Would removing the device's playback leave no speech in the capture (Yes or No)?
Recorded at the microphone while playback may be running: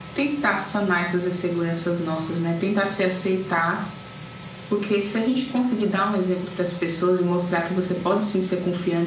No